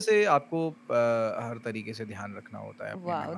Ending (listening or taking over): taking over